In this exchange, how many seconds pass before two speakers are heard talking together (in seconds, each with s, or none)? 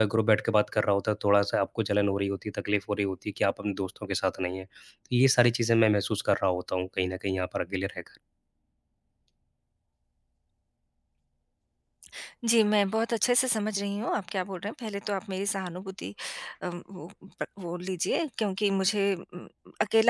none